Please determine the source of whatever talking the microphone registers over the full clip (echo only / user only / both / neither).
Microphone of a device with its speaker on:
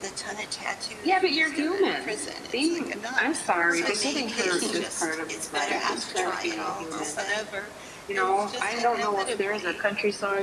both